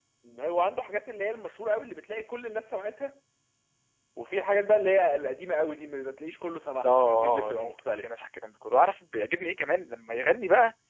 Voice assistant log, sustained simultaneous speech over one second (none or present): present